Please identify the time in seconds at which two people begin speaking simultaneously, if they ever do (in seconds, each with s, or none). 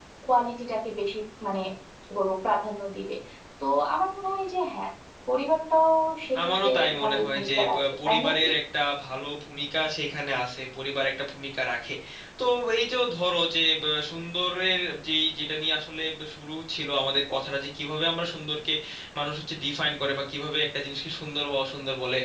6.3 s